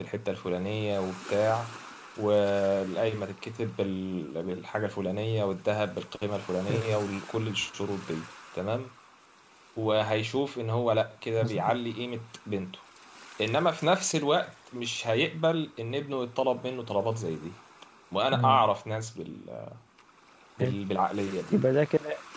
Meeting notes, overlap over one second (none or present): none